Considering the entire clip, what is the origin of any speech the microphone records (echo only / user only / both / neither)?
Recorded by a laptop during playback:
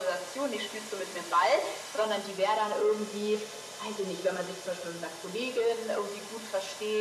echo only